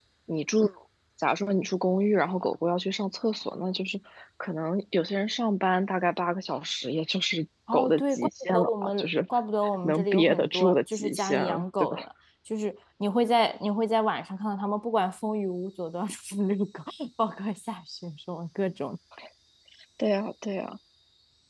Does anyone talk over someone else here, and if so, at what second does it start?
7.7 s

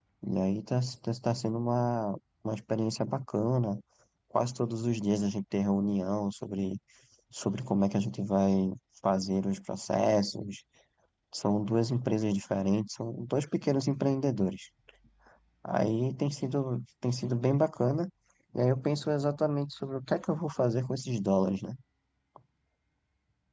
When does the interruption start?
none

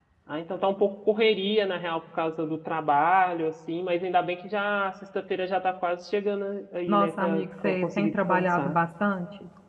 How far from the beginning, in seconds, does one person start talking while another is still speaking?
6.9 s

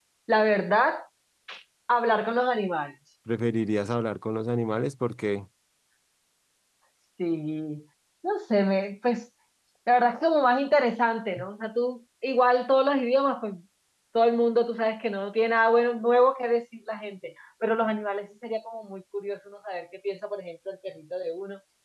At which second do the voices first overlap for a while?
none

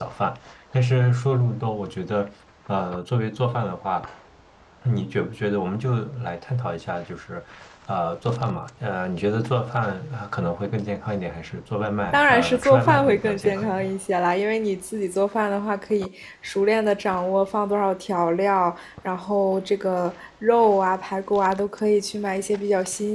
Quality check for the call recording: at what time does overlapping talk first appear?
12.1 s

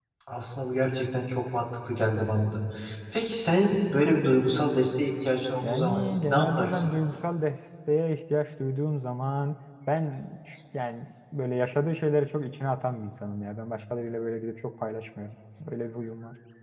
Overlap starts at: 5.6 s

